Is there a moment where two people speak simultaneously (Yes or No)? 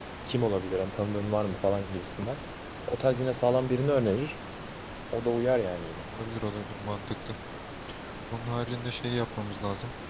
No